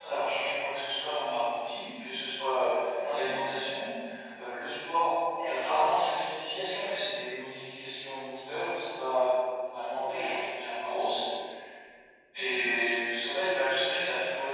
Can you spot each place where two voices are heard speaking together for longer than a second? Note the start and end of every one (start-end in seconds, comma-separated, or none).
none